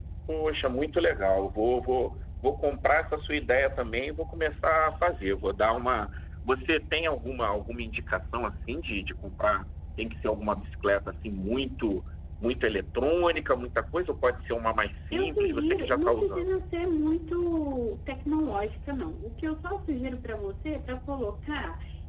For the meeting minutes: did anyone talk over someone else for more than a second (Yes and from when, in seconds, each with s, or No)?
Yes, from 15.1 s